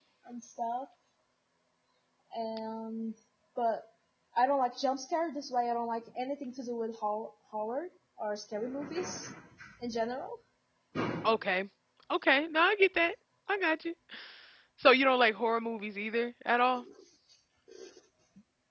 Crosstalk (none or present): none